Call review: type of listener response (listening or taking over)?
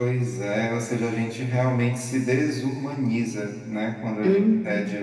listening